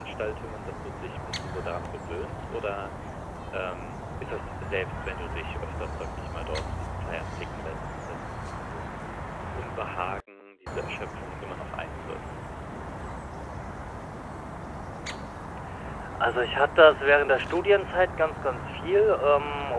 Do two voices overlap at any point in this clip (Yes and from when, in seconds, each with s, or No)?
No